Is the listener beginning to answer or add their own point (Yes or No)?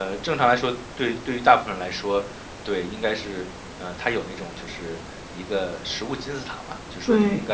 No